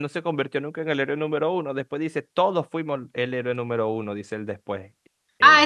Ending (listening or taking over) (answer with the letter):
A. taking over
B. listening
A